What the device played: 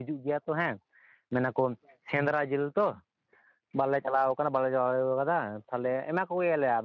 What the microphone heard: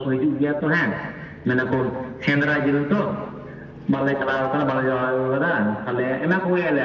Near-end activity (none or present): none